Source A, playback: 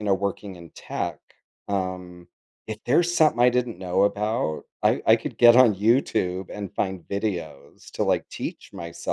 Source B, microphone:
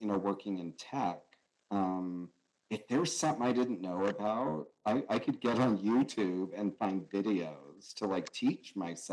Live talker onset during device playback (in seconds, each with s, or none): none